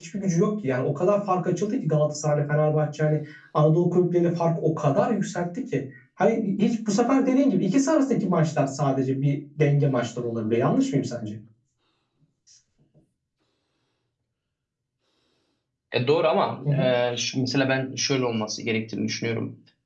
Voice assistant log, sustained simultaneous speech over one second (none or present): none